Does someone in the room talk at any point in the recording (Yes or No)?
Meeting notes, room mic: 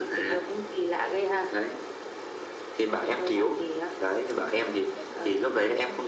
Yes